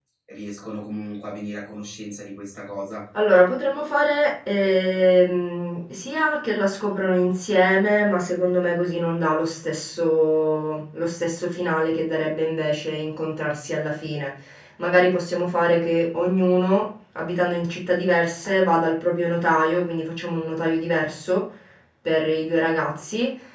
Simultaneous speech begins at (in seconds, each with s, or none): none